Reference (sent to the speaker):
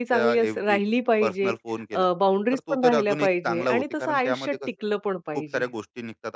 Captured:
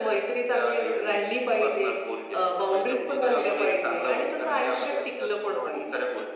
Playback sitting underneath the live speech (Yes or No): No